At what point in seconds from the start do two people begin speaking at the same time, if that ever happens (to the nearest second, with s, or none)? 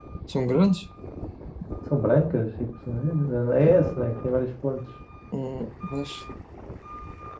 none